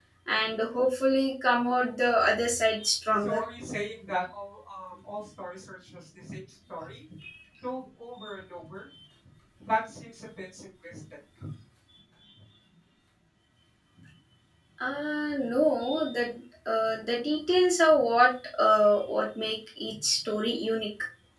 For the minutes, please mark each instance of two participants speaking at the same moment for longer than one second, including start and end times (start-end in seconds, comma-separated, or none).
none